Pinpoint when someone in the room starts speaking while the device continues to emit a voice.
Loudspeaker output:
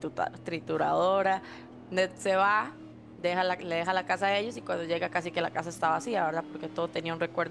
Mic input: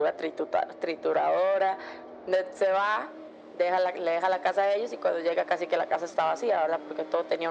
none

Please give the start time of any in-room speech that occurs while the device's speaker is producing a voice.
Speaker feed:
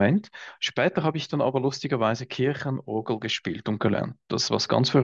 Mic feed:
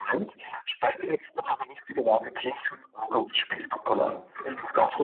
4.0 s

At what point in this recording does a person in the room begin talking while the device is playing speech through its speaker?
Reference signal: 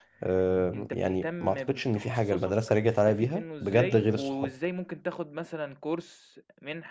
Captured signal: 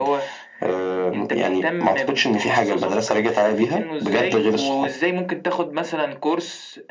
none

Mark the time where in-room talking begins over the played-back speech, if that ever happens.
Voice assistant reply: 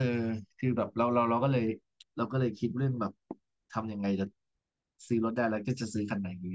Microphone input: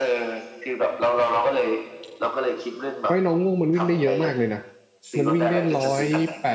3.0 s

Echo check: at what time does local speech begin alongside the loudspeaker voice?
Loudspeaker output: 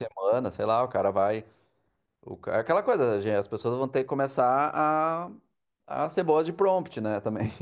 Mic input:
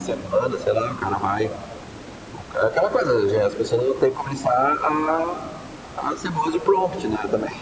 none

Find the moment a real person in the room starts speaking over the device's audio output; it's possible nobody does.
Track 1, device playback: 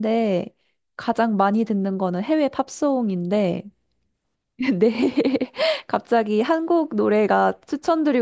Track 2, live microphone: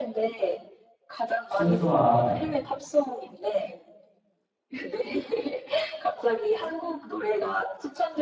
1.4 s

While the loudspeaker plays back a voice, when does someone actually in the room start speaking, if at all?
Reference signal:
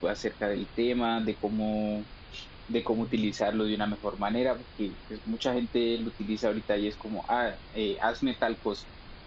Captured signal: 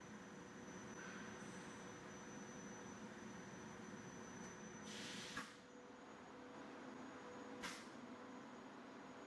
none

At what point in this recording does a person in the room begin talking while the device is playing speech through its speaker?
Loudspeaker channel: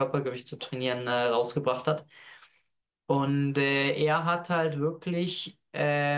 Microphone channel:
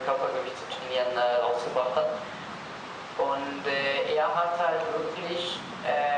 none

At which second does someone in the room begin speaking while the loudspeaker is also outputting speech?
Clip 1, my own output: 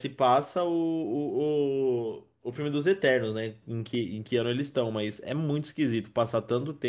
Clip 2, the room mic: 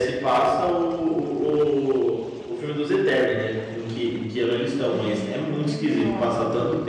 4.8 s

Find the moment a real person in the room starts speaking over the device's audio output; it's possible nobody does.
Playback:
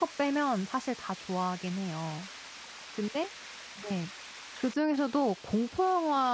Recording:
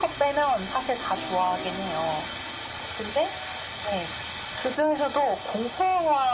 none

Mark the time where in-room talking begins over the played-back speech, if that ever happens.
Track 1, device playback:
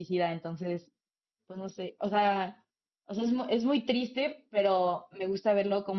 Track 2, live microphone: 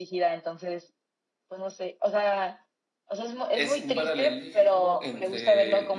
3.5 s

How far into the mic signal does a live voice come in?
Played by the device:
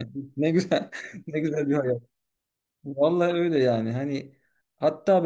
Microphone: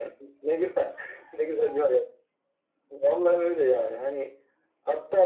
none

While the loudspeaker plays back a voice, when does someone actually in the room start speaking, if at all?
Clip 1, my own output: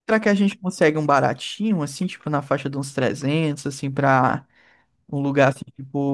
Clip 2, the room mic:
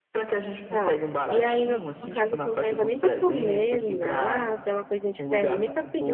0.7 s

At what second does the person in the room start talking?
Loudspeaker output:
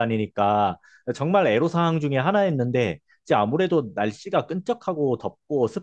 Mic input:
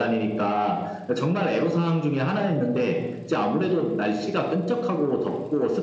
none

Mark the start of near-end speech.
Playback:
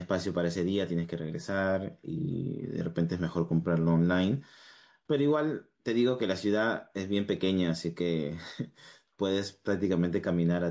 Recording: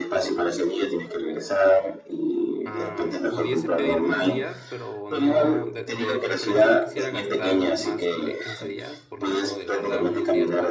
2.6 s

